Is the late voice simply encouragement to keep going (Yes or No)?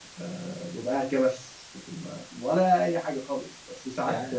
Yes